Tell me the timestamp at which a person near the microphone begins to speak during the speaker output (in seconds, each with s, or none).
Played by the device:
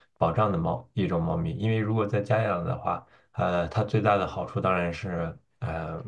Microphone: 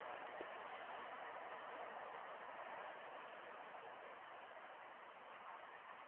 none